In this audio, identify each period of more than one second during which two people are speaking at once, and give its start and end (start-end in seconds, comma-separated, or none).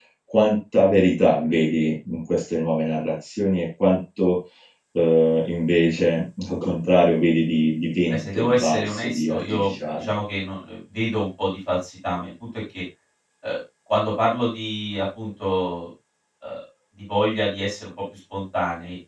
8.1-10.1